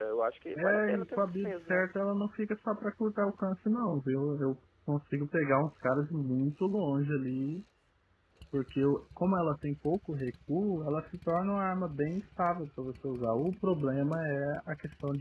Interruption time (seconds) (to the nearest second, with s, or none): 1 s